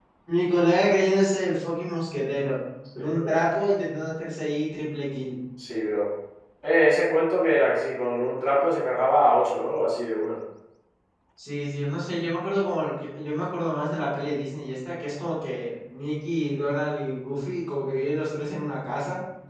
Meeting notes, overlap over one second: none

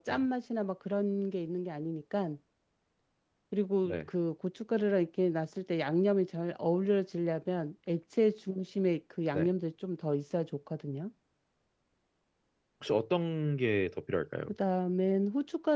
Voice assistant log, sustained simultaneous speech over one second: none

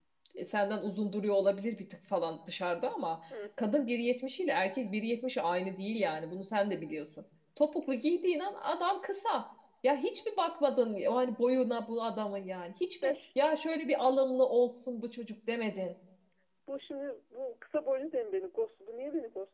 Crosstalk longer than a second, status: none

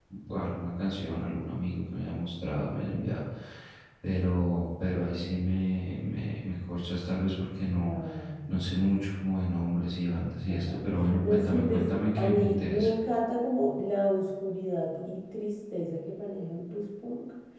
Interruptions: present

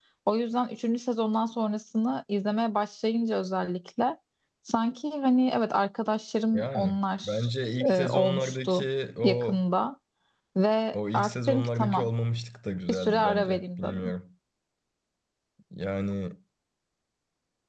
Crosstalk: present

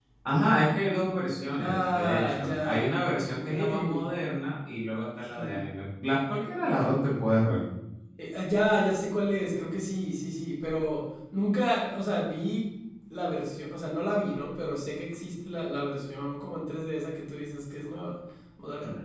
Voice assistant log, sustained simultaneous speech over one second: present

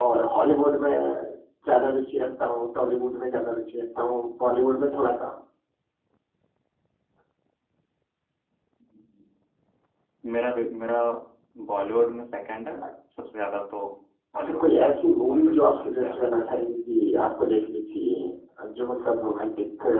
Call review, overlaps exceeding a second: present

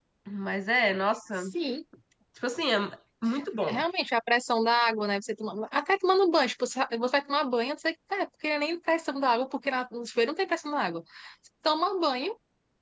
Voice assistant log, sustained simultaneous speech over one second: none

